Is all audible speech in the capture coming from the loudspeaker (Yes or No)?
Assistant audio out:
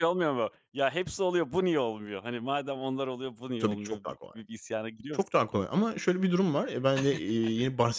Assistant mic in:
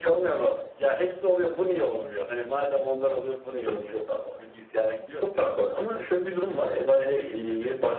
Yes